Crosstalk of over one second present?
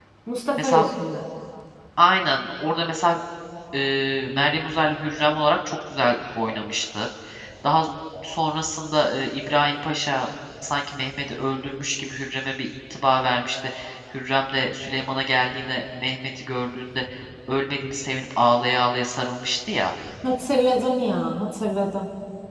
No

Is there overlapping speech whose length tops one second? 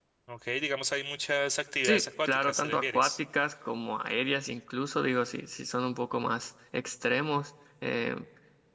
Yes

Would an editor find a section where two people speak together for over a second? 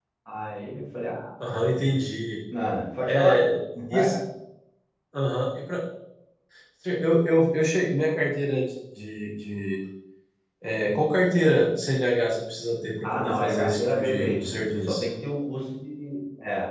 Yes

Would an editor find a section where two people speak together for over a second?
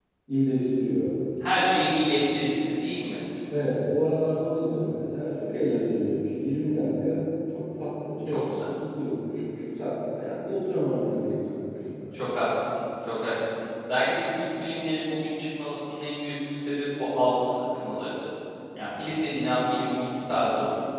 No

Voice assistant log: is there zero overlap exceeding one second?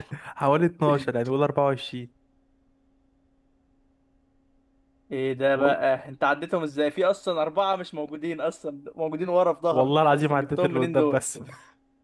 No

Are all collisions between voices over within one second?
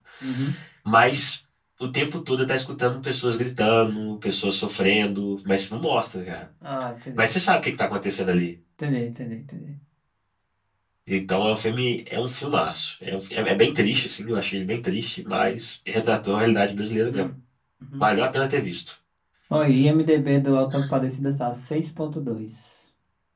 Yes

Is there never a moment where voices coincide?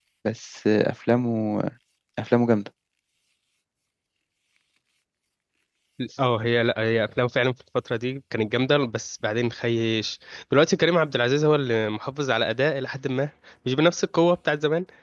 Yes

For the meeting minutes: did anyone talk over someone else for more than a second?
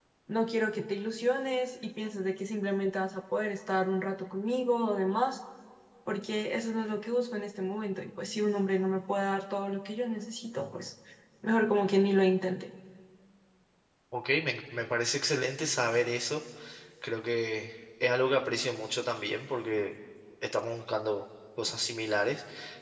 No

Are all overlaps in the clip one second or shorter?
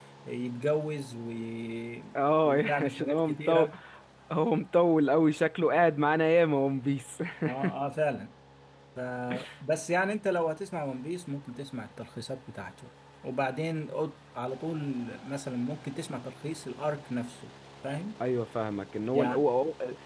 No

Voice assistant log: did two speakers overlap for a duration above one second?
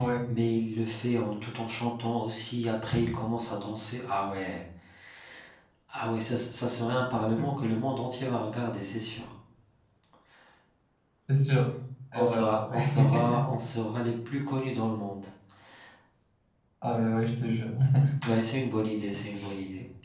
Yes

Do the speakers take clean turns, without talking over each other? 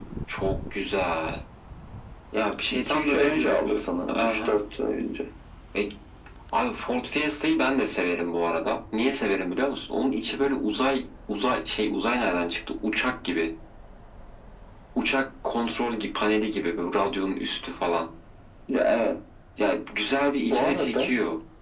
No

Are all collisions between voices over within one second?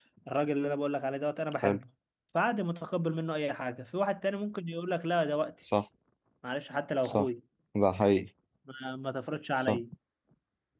Yes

